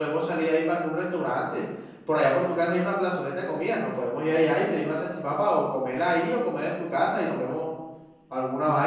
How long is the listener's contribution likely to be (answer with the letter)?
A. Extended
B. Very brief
A